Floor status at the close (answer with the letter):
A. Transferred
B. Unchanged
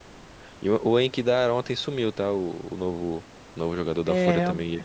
A